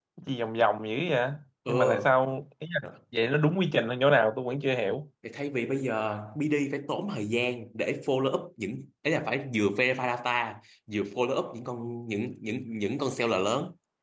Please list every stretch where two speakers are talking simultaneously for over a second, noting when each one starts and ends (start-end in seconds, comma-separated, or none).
none